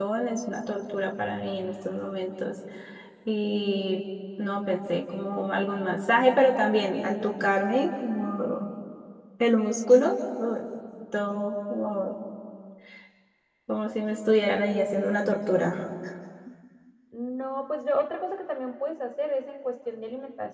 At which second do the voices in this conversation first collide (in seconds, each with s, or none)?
none